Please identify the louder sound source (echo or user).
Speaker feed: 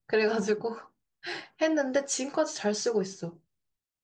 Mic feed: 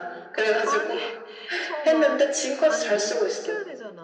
echo